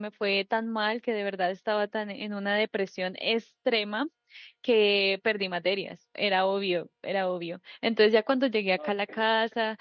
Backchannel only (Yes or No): Yes